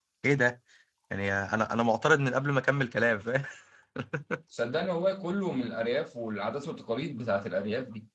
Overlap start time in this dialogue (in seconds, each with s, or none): none